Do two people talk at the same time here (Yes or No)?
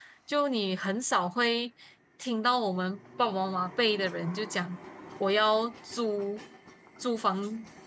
No